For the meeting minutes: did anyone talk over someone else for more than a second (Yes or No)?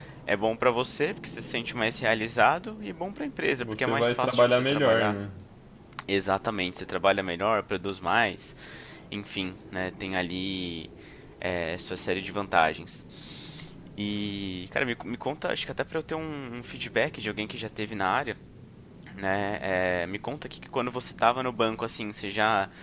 Yes